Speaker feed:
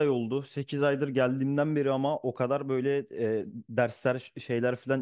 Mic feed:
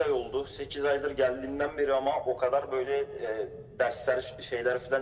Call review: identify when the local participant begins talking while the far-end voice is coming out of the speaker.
none

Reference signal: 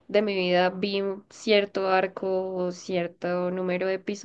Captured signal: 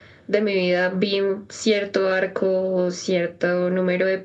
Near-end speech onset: none

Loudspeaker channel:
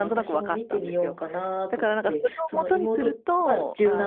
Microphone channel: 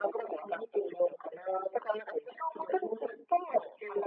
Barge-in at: none

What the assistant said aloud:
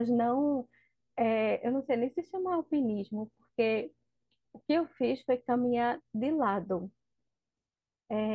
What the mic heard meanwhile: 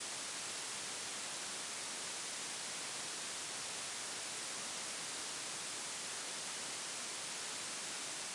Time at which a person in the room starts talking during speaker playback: none

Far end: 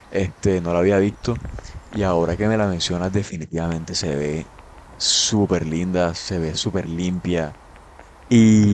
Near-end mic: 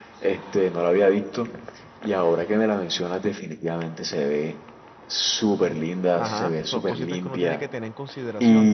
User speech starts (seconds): 6.2 s

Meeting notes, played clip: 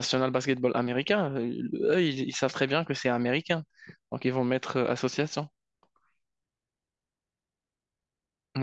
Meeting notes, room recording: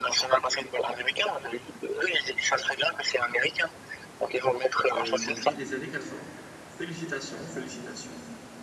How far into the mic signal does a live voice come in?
5.0 s

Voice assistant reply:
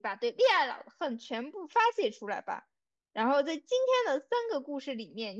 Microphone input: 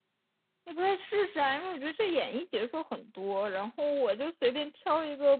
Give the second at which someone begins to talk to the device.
0.6 s

